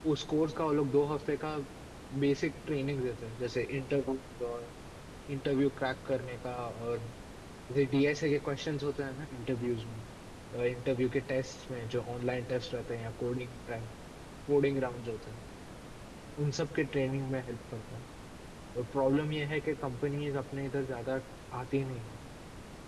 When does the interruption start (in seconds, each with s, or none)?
none